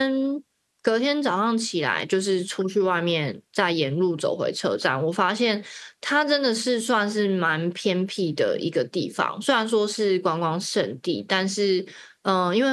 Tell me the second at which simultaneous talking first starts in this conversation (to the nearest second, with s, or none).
none